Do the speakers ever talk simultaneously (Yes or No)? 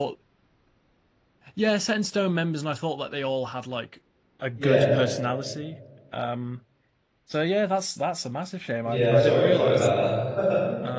Yes